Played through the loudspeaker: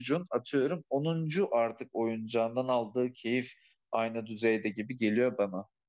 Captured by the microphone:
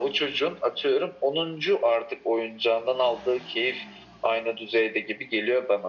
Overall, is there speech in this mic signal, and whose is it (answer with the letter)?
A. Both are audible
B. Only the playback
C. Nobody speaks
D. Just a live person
B